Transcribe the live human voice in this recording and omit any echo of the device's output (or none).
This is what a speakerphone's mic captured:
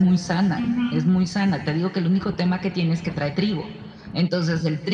Ujú,